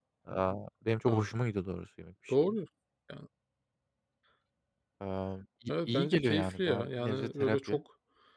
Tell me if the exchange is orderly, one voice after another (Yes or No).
No